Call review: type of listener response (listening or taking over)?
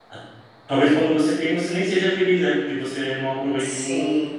taking over